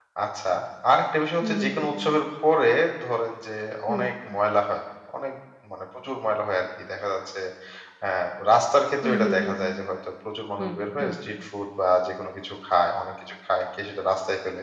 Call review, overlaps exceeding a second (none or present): none